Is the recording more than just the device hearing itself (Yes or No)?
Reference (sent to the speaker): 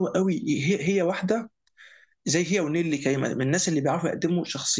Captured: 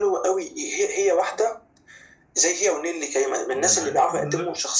Yes